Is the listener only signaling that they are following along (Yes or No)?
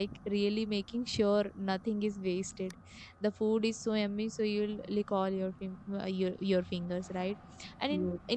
Yes